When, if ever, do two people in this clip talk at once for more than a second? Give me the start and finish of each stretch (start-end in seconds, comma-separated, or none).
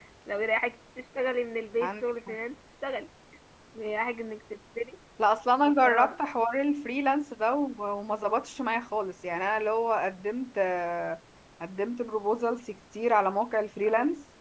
none